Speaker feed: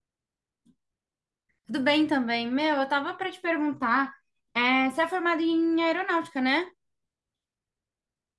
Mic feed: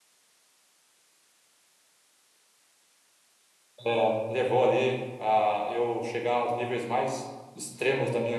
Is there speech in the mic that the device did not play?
Yes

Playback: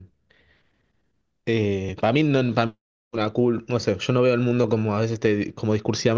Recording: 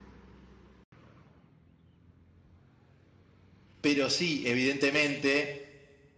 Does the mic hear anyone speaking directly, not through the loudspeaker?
Yes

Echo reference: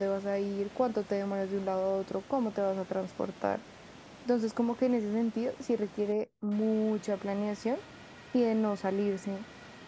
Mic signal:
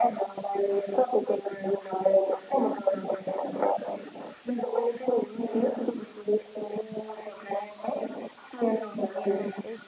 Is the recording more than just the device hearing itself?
Yes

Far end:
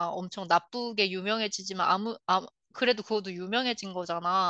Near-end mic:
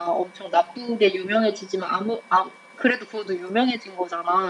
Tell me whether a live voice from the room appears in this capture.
No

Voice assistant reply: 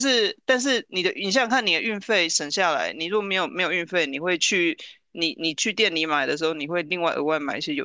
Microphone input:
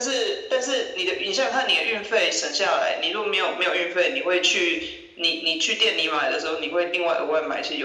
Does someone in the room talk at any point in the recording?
No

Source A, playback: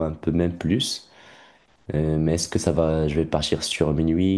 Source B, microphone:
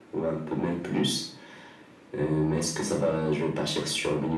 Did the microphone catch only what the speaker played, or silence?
Yes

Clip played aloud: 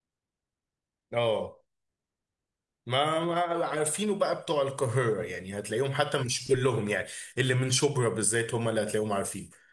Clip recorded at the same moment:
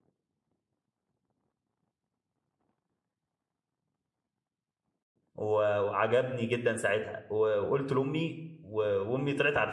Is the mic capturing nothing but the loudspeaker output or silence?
No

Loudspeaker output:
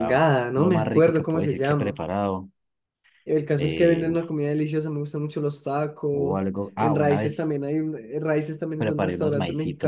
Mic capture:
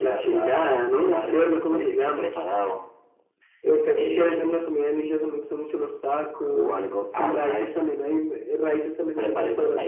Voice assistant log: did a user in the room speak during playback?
No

